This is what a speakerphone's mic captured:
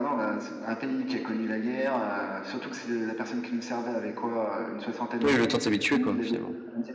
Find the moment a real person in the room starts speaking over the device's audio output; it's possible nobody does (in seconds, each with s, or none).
5.2 s